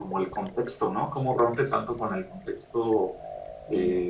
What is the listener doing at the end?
listening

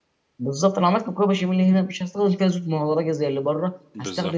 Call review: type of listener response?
listening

